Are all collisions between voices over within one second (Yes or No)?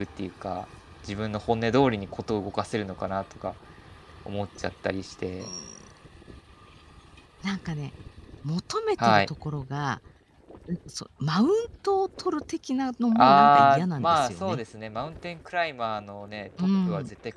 No